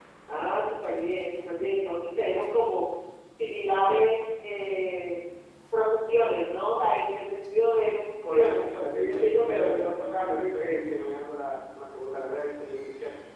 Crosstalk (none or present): present